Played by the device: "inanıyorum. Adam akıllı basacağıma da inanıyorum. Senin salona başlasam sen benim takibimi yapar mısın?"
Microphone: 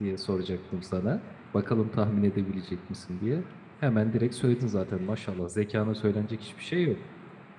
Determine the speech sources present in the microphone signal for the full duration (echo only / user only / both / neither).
user only